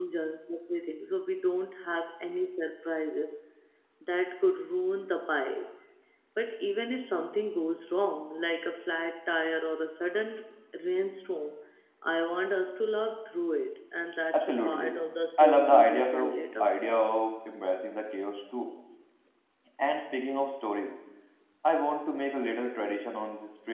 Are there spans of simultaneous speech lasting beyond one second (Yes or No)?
Yes